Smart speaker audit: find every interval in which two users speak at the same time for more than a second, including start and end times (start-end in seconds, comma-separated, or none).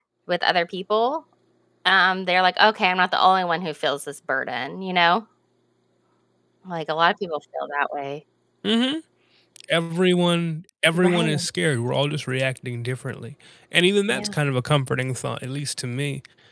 none